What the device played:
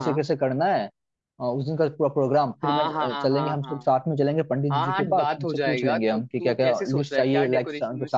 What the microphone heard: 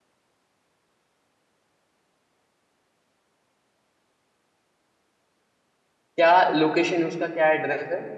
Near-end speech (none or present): present